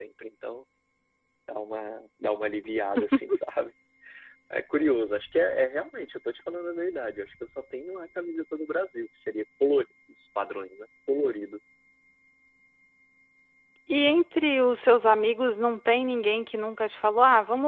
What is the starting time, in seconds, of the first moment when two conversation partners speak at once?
none

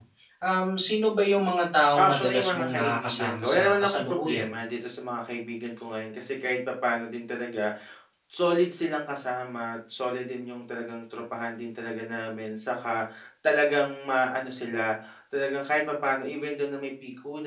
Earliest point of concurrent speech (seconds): 1.9 s

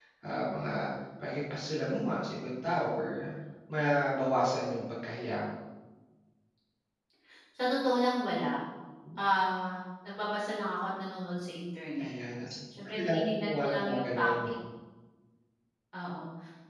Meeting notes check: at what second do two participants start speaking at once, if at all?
12.8 s

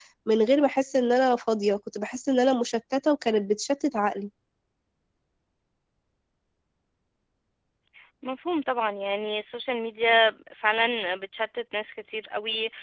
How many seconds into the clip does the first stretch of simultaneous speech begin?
none

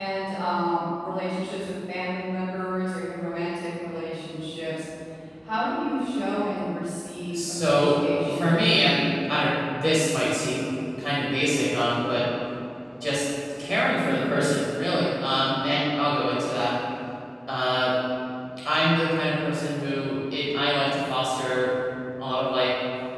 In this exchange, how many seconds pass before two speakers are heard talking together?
7.3 s

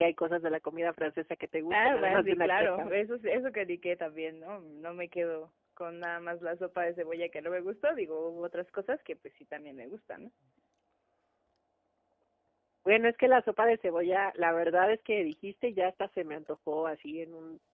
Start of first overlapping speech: 1.7 s

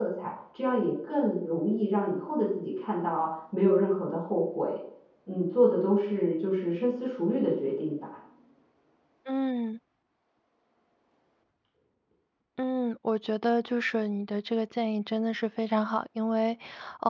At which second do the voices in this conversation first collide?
none

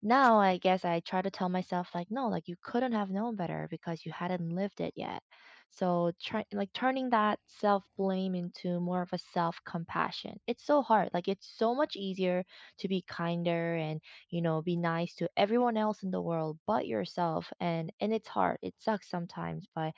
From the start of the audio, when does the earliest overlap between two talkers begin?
none

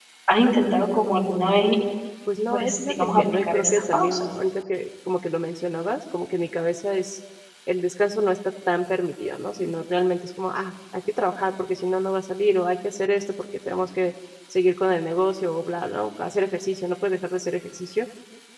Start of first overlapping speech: 2.5 s

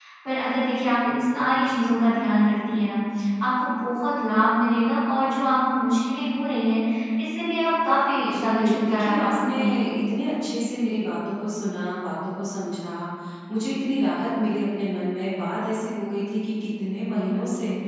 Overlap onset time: 8.2 s

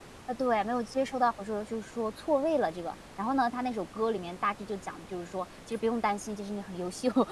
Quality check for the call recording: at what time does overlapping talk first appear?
none

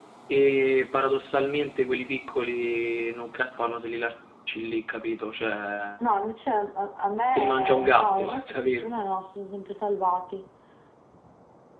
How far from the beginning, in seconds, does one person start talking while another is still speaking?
7.3 s

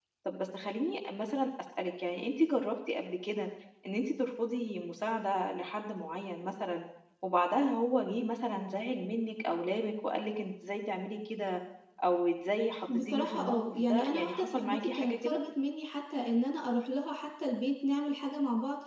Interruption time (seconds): 12.9 s

